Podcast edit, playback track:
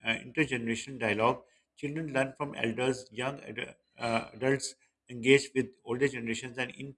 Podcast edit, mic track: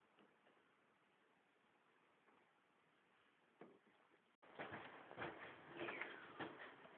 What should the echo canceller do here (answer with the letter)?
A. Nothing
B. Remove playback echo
A